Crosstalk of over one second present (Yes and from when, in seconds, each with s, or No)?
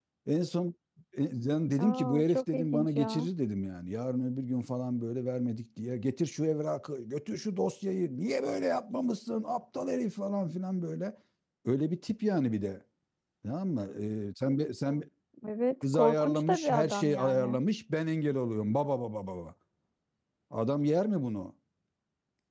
Yes, from 1.8 s